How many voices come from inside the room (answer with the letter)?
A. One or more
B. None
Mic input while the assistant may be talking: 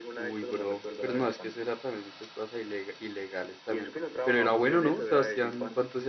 A